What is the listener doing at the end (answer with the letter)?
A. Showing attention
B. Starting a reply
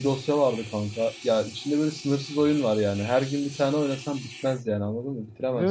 A